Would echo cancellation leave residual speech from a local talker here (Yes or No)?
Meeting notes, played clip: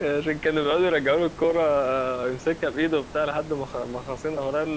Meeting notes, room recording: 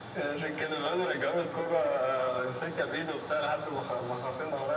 Yes